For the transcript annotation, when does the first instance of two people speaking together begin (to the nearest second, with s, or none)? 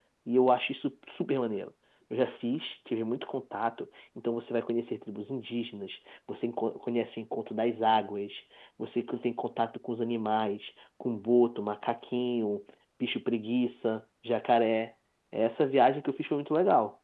none